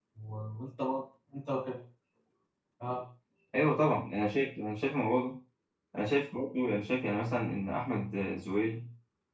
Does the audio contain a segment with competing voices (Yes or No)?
No